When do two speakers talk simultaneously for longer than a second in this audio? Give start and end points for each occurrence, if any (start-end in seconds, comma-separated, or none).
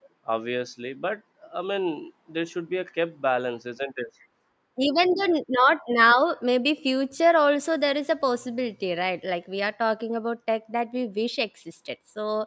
none